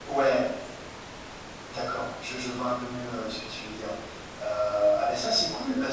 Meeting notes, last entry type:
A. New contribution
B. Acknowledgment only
B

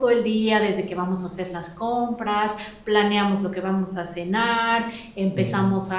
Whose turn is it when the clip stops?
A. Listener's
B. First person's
B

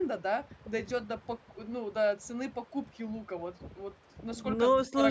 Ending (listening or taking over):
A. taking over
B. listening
A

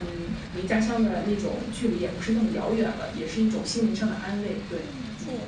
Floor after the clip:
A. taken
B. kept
A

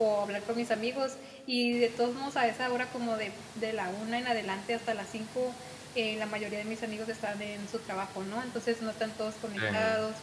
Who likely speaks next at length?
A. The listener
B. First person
B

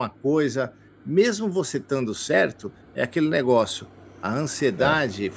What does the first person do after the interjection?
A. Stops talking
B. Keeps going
B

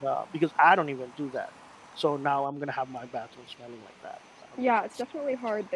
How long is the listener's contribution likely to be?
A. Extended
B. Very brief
A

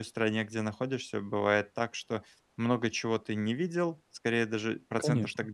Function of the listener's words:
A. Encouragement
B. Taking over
A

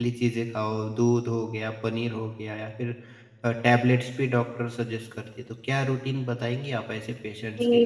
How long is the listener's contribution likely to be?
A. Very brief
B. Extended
B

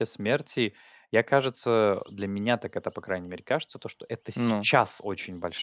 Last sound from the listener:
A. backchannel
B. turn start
A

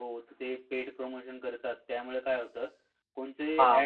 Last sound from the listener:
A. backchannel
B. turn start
B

